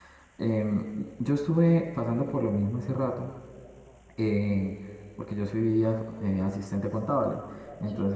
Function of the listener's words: listening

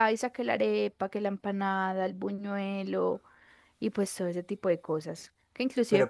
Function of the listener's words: listening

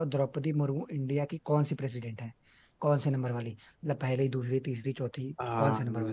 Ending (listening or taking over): taking over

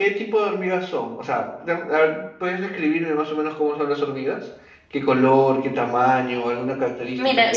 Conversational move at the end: taking over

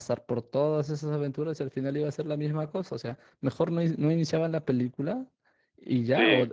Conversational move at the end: listening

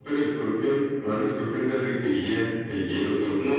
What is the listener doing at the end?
taking over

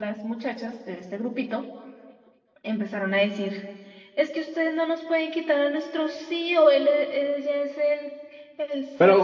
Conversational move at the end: taking over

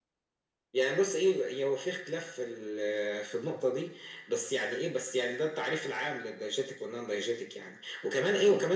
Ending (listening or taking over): listening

